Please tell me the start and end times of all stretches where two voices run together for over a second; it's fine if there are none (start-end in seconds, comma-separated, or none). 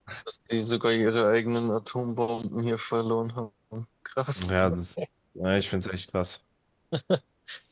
none